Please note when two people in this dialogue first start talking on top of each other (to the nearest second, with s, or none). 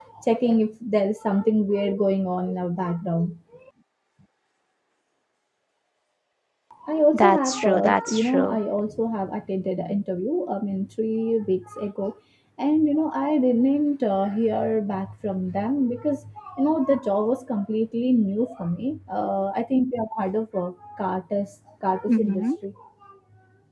7 s